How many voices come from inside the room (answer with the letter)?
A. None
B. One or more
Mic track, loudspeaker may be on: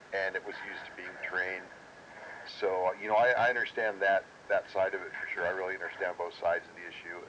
A